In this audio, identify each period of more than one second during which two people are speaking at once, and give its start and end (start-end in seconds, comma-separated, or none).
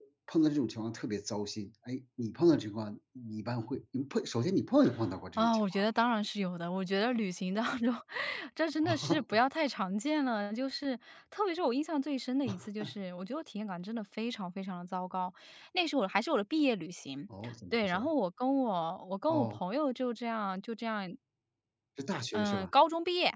none